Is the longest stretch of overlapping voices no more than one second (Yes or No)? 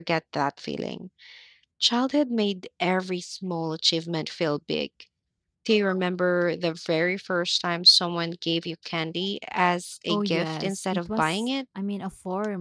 No